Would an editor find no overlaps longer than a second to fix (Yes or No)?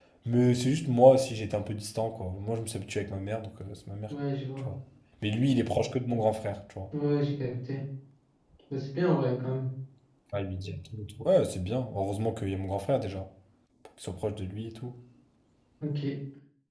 Yes